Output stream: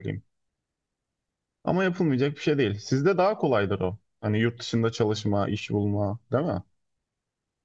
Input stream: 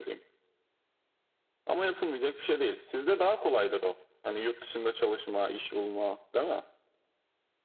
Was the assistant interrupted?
No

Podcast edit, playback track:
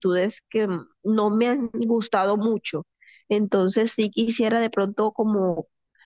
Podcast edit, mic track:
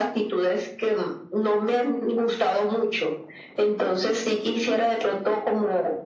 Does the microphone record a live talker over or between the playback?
No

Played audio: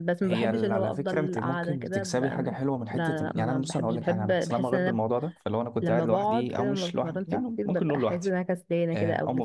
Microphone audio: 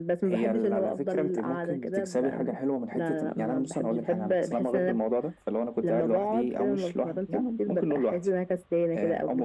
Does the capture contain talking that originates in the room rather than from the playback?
No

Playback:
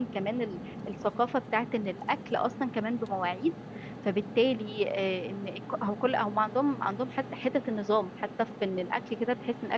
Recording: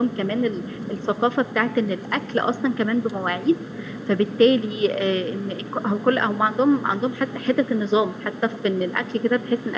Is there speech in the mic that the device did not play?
No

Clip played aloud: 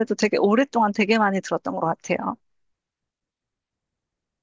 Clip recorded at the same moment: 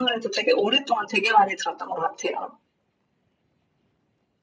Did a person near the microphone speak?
No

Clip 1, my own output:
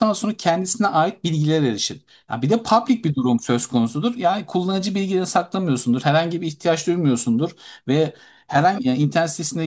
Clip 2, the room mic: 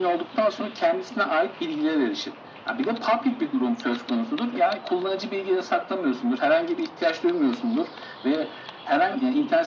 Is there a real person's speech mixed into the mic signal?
No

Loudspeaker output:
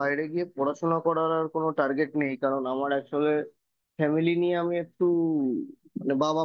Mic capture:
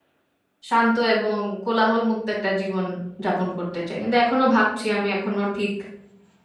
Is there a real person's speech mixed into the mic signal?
Yes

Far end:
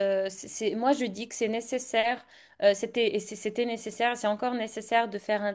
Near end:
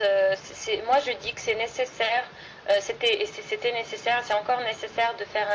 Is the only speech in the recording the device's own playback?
Yes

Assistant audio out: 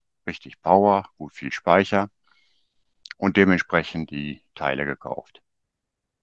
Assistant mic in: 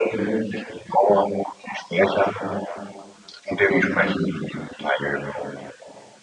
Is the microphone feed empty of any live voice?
Yes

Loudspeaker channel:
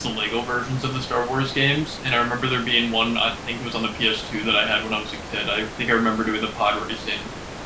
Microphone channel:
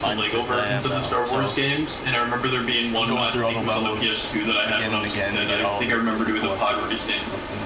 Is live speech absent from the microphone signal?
No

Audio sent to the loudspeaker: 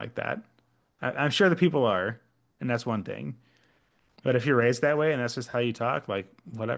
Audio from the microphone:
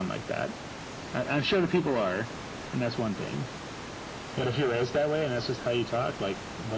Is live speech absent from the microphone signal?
Yes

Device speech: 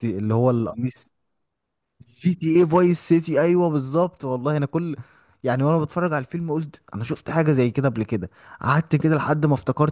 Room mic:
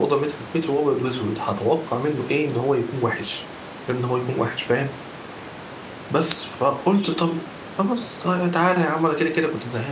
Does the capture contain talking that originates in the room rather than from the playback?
Yes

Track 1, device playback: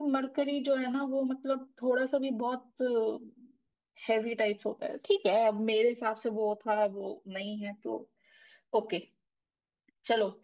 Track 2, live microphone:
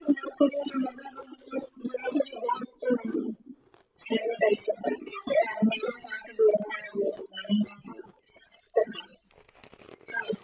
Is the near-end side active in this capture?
No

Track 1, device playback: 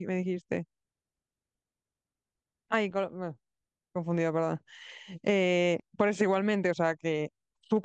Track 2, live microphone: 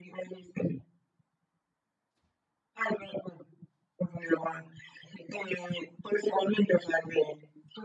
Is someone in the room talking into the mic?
No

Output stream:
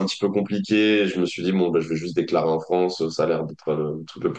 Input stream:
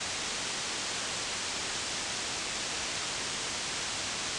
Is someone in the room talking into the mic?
No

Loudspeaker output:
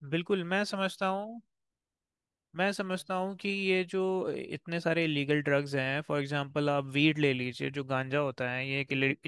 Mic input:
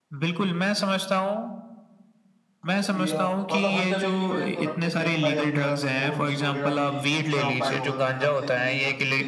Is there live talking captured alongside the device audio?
Yes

